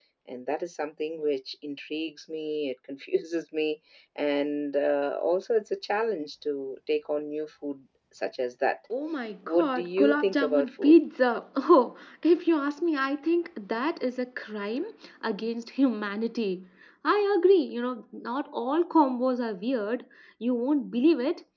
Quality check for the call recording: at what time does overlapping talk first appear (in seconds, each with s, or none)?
9.5 s